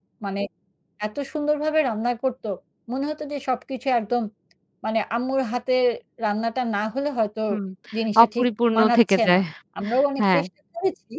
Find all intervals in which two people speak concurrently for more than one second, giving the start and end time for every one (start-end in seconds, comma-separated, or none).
8.2-9.4